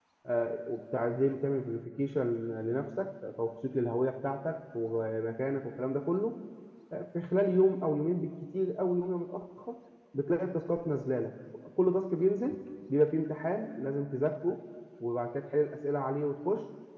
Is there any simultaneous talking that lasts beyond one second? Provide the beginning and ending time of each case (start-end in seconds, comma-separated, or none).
none